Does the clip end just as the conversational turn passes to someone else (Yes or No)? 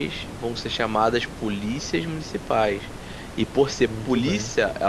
No